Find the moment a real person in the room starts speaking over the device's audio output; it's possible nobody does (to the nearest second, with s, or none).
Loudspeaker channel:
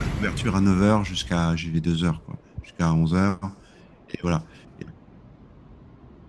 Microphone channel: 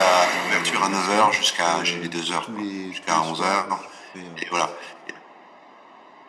0 s